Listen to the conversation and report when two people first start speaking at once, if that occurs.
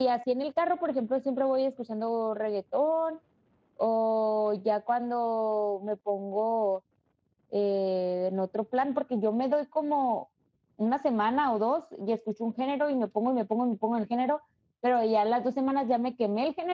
none

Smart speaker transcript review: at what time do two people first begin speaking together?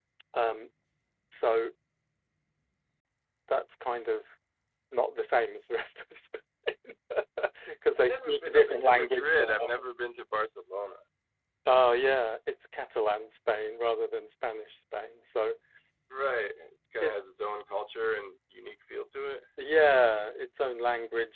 8.0 s

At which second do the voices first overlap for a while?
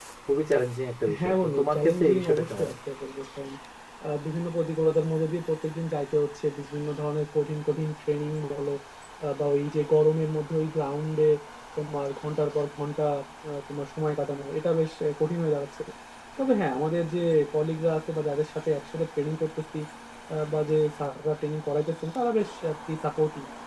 1.2 s

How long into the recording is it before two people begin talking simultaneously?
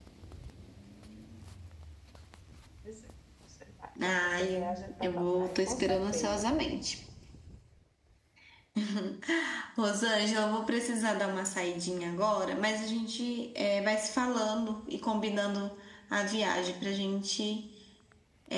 4.0 s

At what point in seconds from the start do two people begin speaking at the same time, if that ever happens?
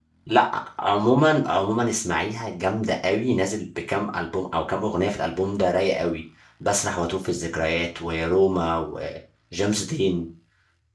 none

